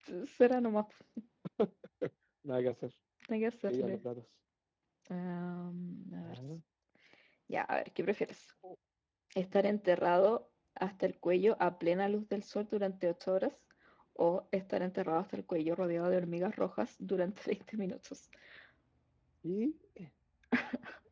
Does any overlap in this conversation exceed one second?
No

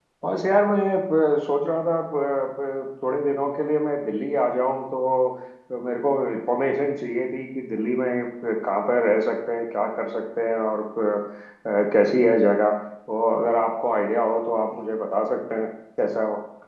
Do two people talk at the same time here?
No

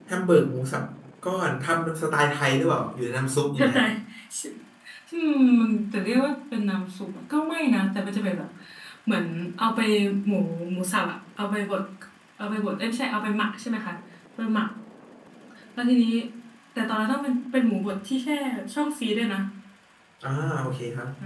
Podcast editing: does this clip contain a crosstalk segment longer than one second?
No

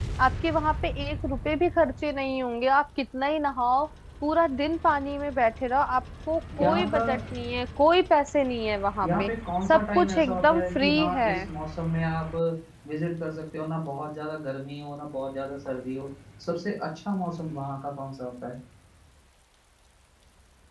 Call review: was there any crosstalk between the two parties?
Yes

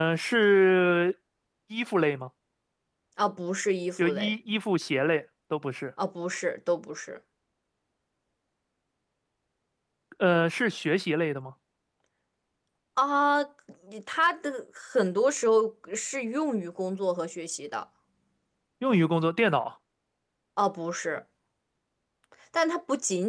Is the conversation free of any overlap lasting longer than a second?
Yes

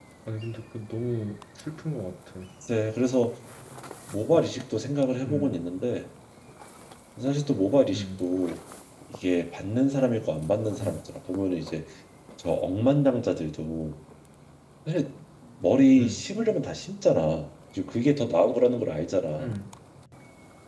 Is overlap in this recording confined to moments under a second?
Yes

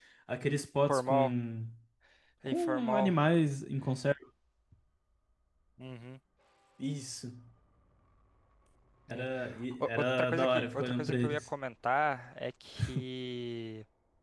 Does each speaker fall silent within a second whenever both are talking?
No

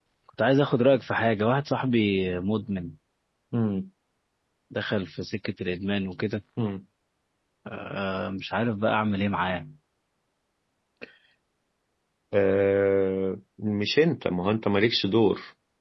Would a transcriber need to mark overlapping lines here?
No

